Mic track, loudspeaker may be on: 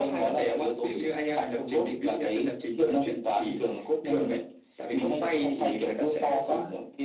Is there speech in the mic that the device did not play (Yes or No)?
No